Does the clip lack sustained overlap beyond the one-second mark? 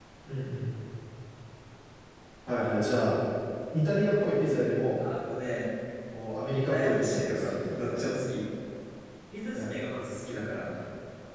No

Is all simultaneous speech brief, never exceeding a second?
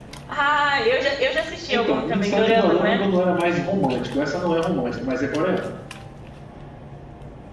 No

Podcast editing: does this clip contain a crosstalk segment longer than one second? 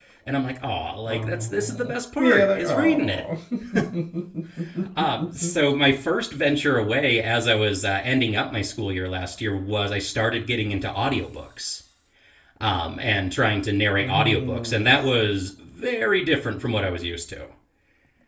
Yes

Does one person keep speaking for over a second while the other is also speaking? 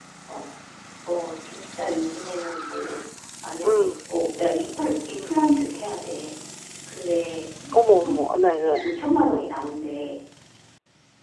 No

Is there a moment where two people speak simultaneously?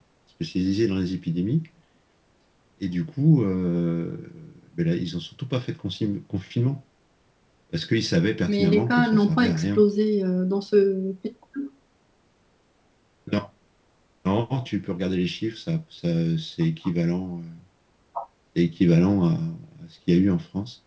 Yes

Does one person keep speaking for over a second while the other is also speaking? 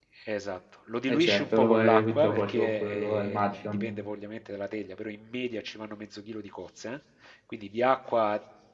Yes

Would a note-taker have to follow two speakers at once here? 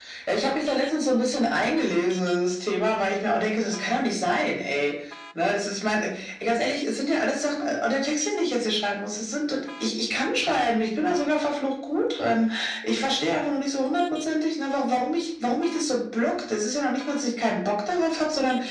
No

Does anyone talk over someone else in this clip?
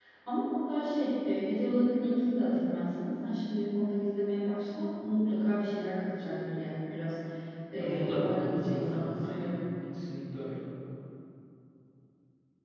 Yes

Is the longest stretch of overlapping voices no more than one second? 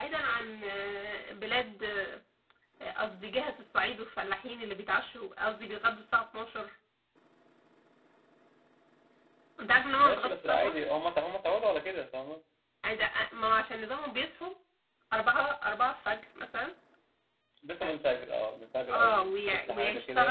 No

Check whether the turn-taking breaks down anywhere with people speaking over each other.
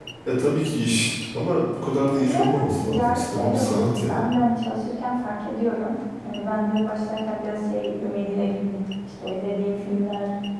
Yes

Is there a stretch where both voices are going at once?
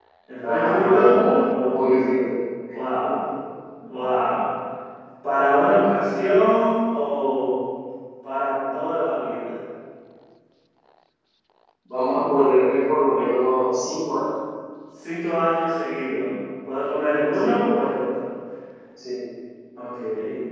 Yes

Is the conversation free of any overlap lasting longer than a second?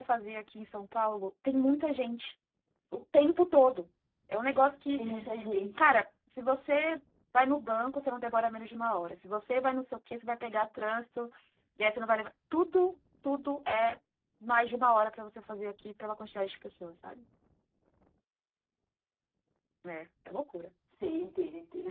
Yes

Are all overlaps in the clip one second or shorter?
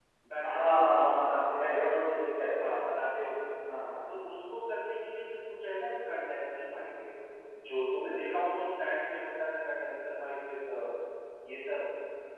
No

